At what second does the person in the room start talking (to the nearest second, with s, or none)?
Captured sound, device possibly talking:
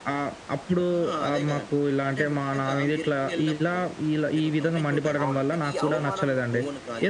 5 s